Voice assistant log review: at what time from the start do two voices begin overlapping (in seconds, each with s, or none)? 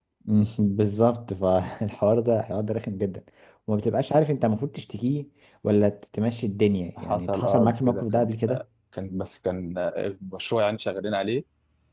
7.0 s